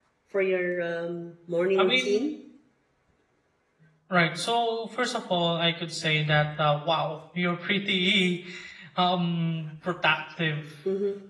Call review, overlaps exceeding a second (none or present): none